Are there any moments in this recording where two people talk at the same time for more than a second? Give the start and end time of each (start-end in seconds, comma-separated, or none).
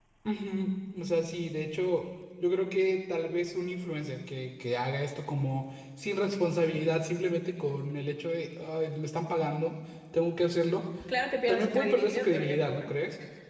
11.5-12.9